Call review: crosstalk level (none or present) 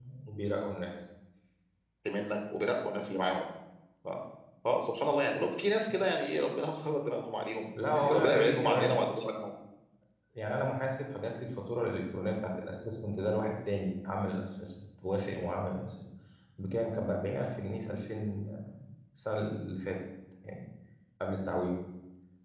present